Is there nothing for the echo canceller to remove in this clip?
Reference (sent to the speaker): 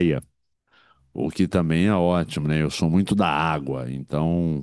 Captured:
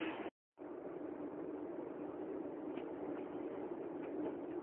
Yes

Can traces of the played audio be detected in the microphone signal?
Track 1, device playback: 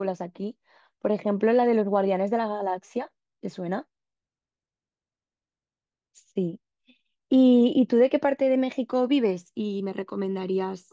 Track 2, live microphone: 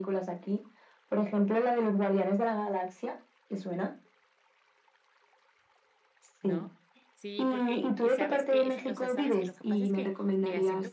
Yes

